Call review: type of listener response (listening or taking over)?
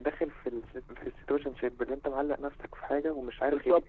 taking over